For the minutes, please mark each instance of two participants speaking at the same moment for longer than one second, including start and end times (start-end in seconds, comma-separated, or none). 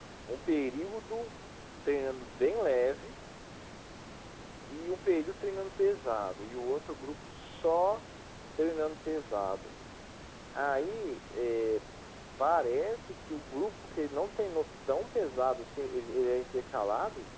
none